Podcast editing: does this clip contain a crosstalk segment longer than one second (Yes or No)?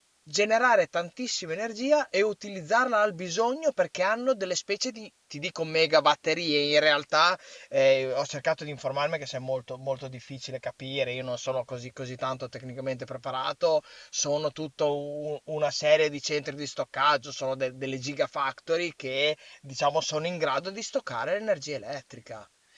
No